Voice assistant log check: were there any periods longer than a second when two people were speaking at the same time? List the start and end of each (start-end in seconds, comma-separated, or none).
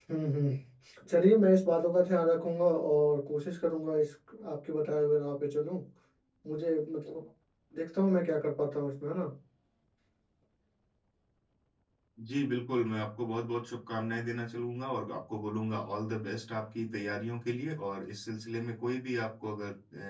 none